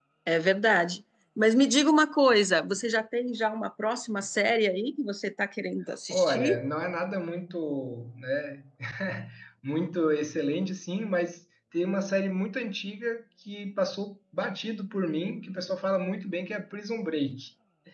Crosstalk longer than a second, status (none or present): none